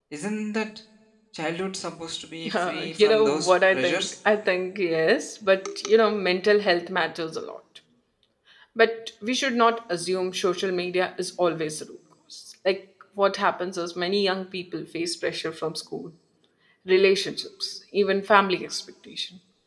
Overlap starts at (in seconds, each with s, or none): 2.5 s